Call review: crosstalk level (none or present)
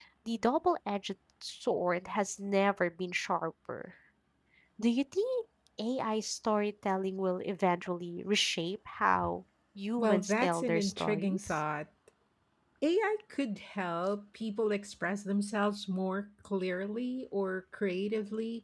present